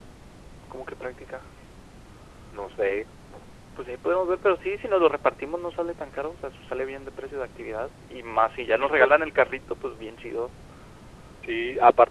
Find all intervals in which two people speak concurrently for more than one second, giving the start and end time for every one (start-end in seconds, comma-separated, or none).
none